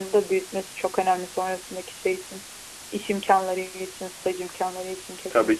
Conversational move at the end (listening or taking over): taking over